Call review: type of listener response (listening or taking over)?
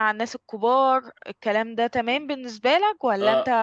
taking over